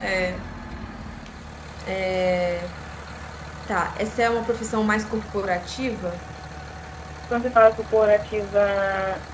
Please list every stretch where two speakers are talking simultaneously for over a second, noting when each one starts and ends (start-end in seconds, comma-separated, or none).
none